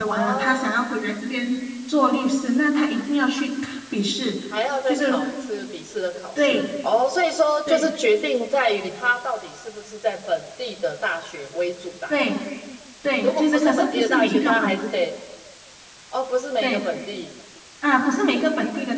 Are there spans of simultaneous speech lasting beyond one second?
Yes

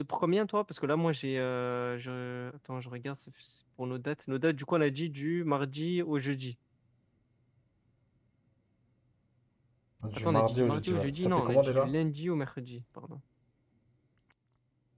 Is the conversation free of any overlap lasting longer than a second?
No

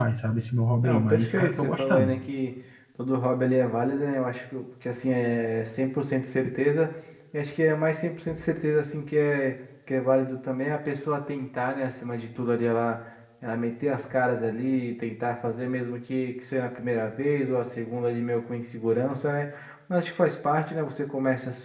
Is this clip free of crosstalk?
No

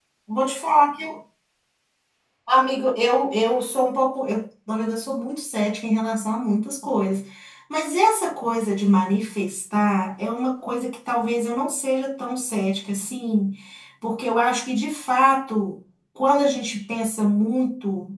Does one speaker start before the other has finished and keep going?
No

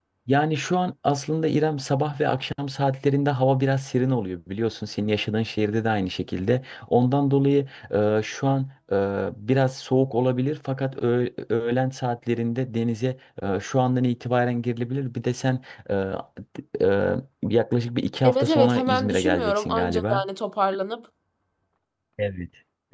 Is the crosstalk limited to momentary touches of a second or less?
No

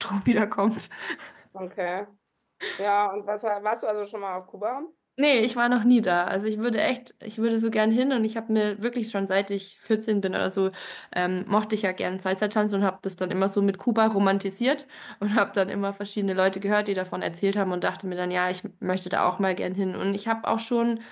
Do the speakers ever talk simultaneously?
No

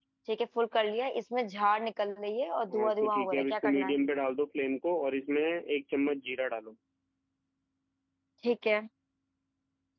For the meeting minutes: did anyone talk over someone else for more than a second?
Yes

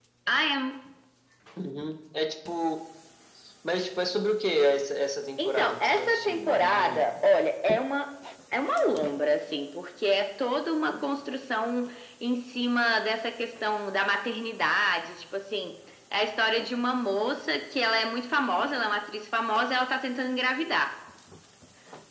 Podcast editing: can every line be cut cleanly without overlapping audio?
No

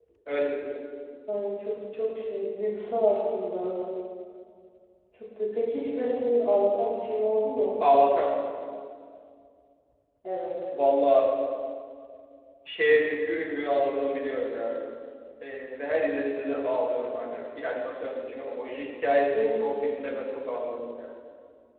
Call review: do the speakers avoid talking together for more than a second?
Yes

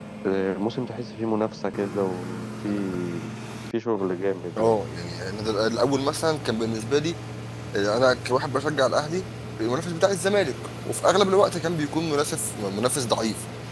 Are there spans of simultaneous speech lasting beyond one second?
No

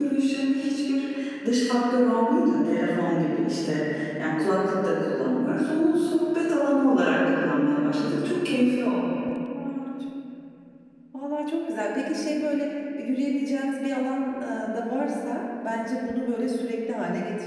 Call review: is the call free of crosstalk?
Yes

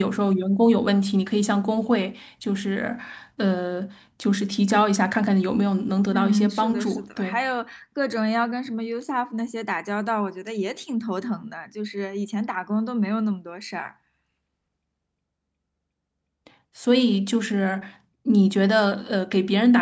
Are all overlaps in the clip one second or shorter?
No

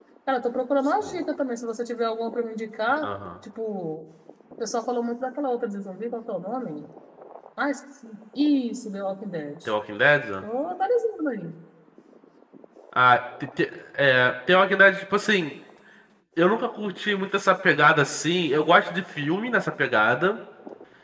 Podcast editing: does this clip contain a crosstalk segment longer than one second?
No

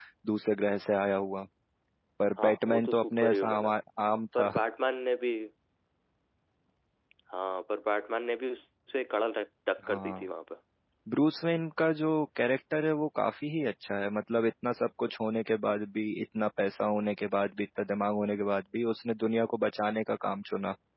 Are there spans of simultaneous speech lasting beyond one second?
Yes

